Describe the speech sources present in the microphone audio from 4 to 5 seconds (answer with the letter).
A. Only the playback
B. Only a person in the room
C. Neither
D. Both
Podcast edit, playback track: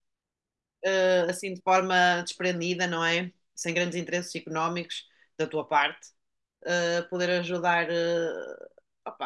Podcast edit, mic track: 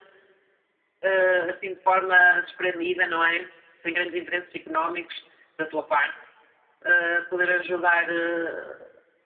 A